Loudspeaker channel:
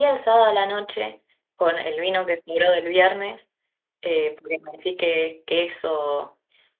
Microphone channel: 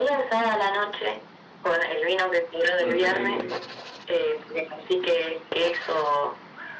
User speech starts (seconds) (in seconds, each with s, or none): 2.8 s